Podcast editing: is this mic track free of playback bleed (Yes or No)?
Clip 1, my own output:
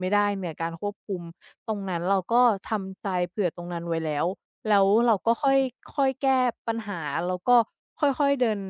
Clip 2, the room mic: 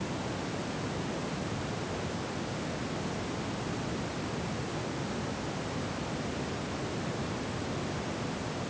Yes